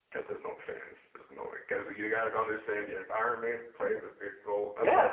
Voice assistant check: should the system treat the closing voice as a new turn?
Yes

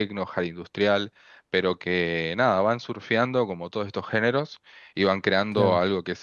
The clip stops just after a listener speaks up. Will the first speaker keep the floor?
Yes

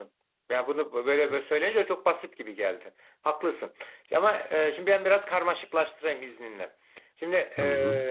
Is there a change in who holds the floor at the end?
No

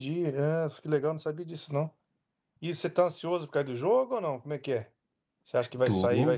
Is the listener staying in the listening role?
Yes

